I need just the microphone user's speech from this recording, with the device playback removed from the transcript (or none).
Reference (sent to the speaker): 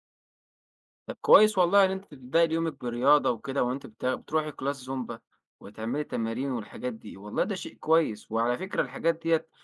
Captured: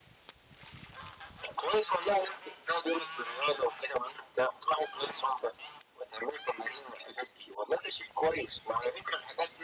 none